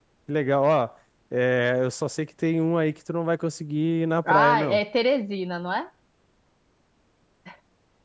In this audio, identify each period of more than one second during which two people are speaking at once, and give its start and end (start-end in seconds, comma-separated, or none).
none